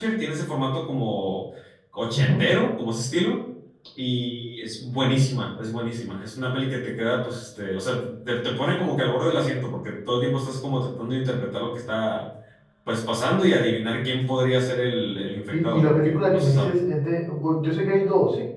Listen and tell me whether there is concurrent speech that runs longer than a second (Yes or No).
Yes